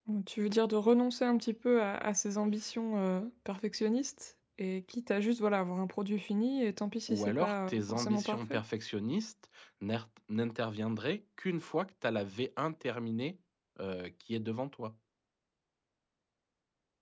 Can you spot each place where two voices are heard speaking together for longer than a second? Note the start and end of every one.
7.1-8.6

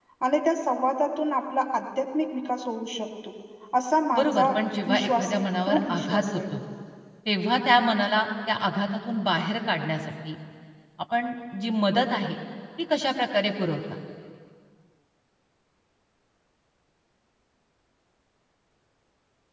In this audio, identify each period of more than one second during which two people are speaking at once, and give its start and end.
4.9-6.4

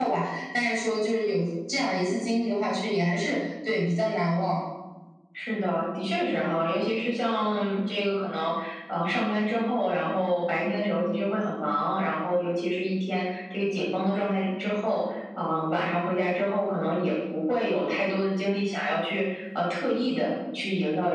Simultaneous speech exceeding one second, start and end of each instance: none

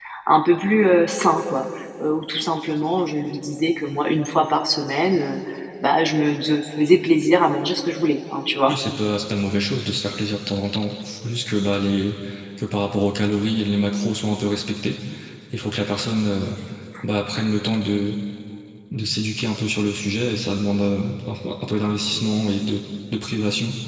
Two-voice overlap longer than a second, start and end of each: none

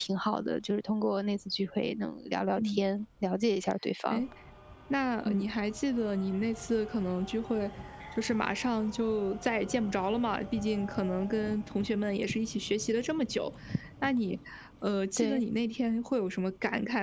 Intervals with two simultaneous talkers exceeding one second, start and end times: none

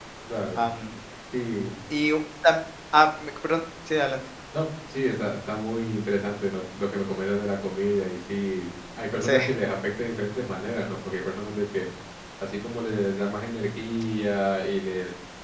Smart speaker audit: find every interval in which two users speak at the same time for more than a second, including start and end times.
none

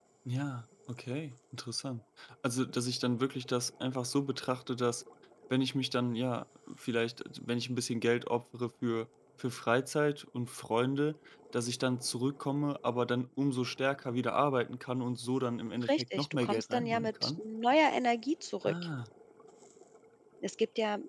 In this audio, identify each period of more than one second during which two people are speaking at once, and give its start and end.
15.9-17.4

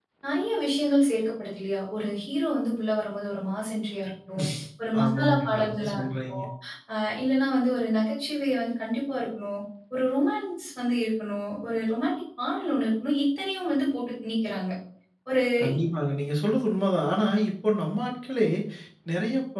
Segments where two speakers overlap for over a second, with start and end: 5.0-6.4

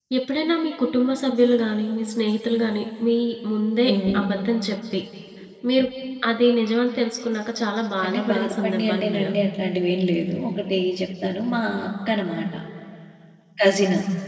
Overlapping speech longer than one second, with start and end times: 8.0-9.3

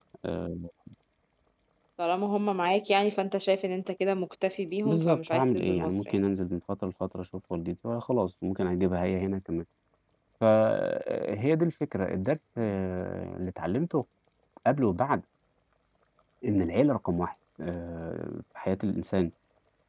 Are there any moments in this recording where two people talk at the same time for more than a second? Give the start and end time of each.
4.8-6.2

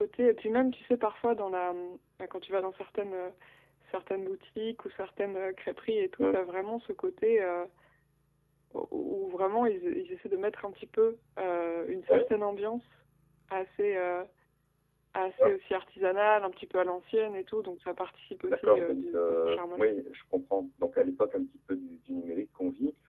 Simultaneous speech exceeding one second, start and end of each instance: 18.5-19.9

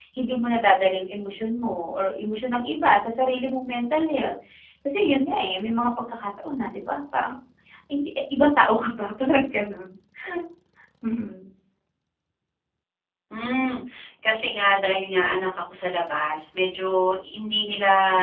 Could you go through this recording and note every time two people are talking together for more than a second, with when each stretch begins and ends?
none

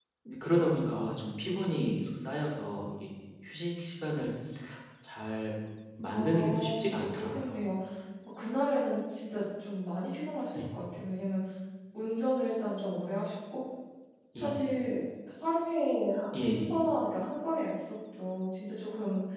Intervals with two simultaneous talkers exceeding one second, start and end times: 6.0-7.5

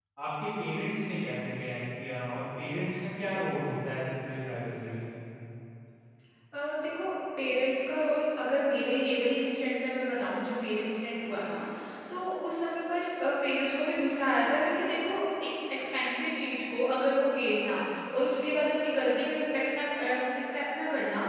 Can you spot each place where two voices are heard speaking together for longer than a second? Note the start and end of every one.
none

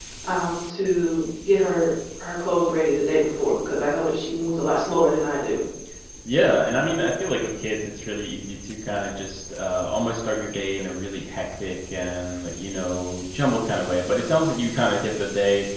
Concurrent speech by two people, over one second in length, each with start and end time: none

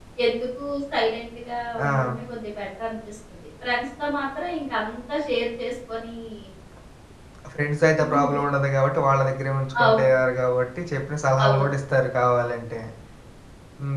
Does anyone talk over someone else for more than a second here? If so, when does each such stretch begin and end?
none

